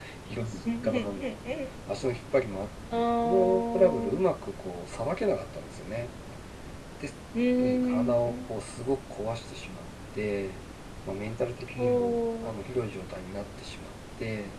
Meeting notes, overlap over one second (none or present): present